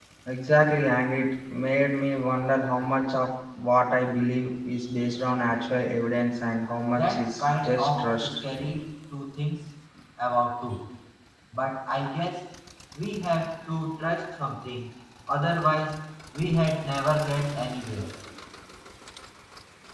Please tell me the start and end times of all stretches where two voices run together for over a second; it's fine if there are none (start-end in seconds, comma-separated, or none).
6.9-8.3